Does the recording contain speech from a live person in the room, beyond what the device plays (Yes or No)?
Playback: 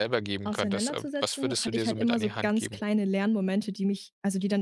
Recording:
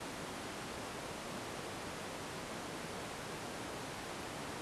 No